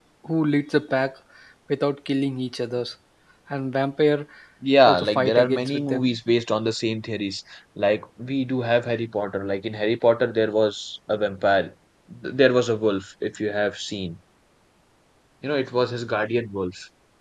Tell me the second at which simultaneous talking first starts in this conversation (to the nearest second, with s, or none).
5 s